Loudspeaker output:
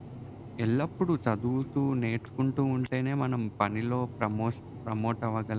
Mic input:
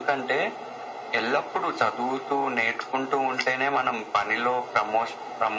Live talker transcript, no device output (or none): none